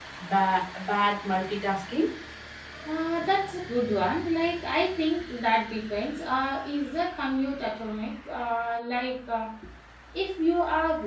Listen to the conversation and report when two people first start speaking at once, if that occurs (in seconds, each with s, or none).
none